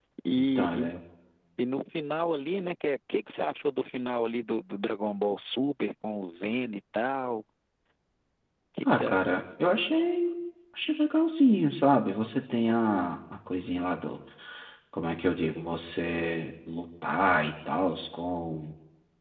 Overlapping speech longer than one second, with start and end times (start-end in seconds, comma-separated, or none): none